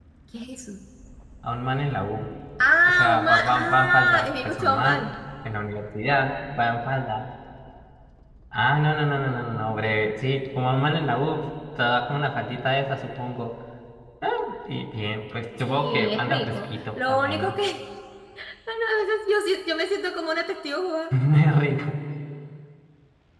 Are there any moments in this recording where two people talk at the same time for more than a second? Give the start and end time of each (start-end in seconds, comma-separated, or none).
2.8-5.1, 15.7-17.5